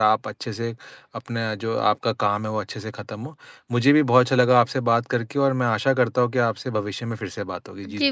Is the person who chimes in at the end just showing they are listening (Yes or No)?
No